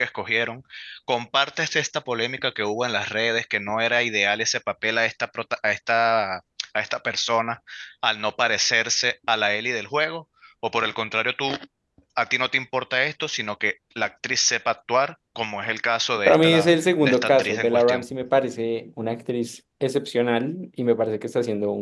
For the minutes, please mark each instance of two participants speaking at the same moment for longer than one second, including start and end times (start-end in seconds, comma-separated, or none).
16.3-18.0